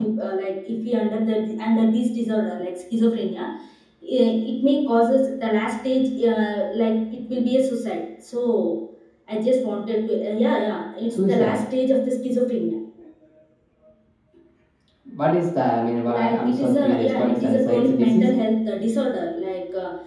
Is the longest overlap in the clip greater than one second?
Yes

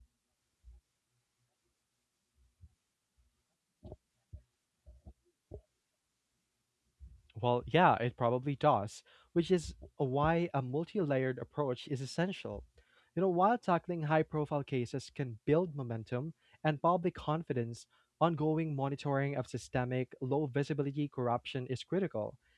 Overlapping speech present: No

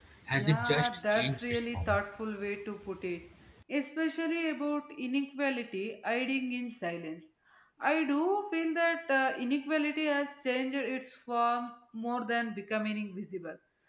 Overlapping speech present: Yes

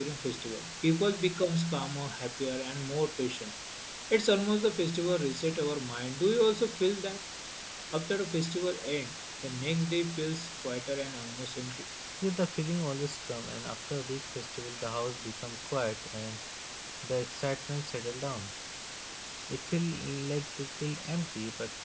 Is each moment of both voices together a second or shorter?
Yes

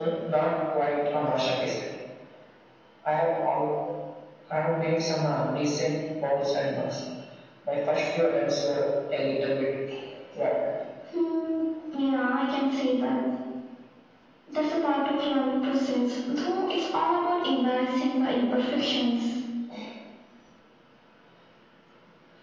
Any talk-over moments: No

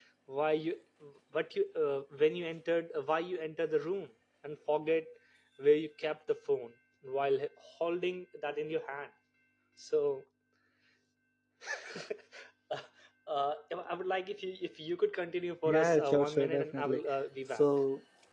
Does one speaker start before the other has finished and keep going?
Yes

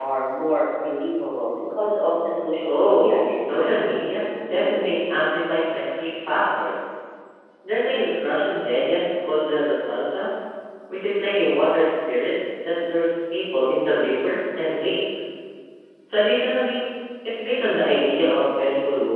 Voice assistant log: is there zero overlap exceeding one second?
No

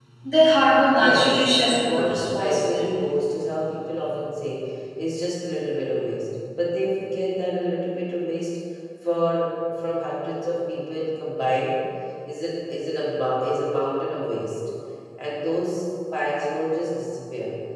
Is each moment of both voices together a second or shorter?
No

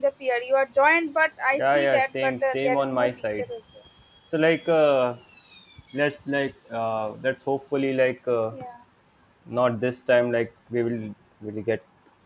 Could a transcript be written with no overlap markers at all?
No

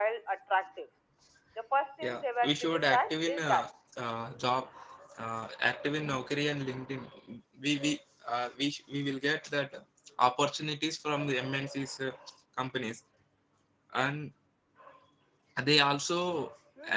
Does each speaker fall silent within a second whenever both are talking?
No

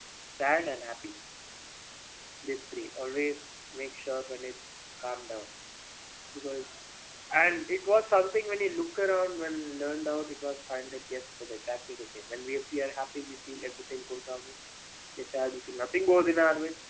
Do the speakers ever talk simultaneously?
No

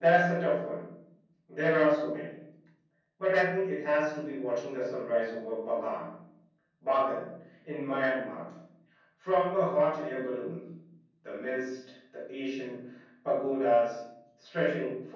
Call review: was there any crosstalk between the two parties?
No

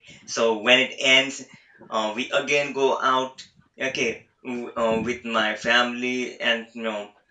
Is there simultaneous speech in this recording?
No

